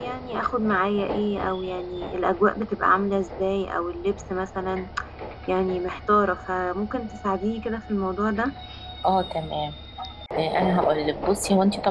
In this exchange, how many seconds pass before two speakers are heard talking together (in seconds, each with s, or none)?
none